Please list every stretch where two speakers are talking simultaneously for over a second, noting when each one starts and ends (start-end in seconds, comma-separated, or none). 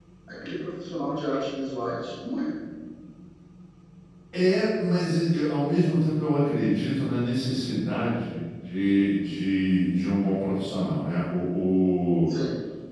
none